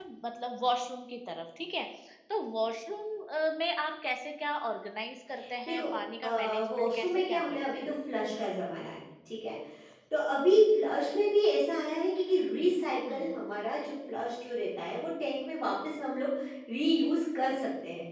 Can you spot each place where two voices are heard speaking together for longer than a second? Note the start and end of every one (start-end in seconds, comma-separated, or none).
6.2-7.9